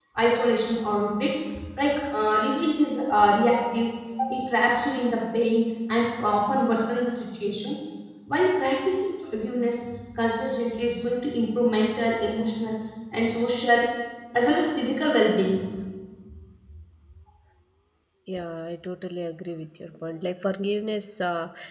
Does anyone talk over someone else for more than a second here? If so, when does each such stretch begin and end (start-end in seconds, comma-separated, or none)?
none